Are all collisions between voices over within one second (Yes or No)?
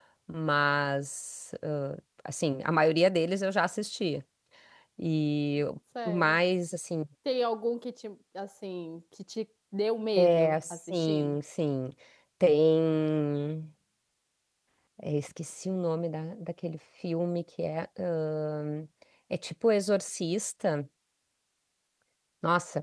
No